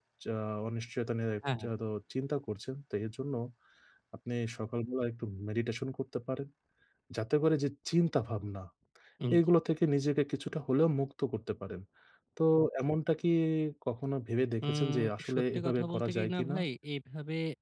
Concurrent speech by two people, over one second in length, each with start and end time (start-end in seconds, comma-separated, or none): 14.6-16.6